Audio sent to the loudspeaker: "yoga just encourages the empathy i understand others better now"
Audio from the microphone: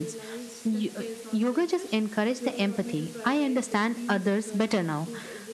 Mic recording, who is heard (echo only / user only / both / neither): both